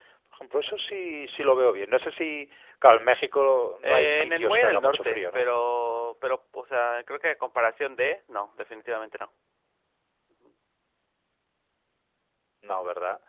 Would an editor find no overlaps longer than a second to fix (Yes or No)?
No